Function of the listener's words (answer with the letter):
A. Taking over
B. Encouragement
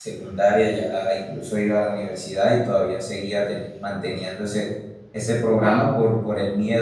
B